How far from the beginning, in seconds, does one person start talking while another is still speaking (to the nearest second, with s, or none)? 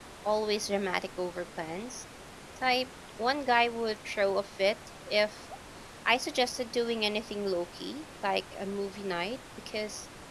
none